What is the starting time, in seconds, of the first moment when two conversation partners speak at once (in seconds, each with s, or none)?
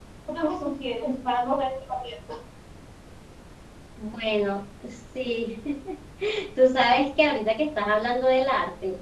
none